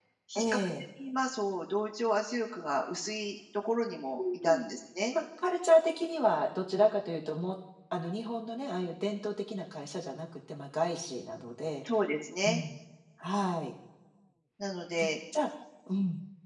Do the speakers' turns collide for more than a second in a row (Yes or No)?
No